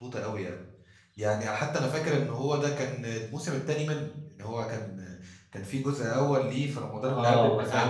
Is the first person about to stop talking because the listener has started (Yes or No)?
Yes